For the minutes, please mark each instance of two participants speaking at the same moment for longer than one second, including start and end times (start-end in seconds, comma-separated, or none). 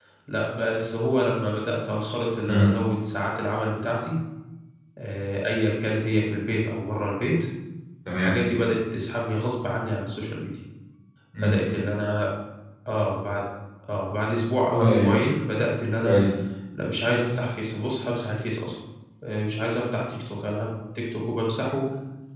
none